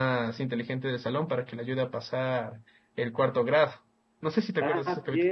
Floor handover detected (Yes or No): Yes